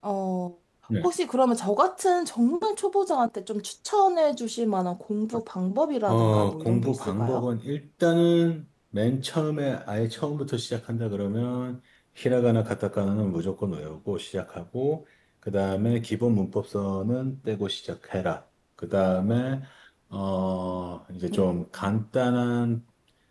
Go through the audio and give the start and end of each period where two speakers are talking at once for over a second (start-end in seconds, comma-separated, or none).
6.1-7.5